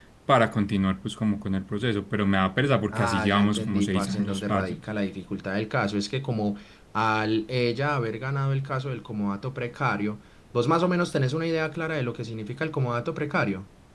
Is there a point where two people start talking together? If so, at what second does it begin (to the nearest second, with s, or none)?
3 s